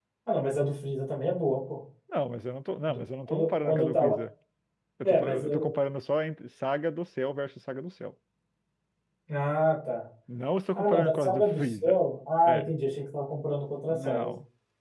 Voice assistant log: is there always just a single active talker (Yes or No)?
No